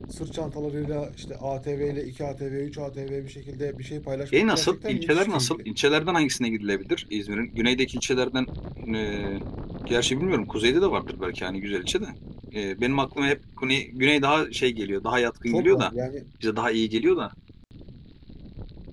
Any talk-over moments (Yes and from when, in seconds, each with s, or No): Yes, from 4.3 s